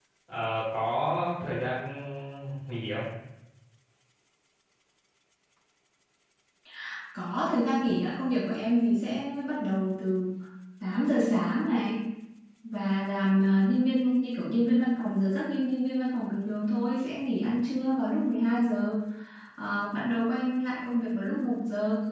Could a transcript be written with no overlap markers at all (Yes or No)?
Yes